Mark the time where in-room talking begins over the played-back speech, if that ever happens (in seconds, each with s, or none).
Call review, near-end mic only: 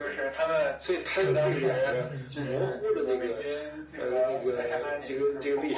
1.2 s